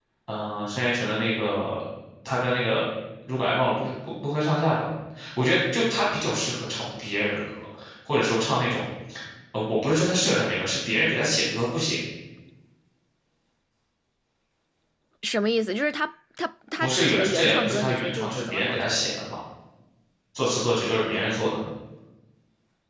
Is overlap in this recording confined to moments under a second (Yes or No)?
No